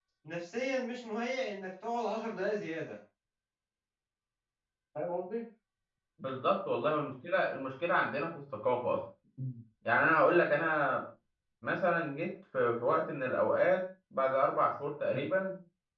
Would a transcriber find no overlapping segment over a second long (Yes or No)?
Yes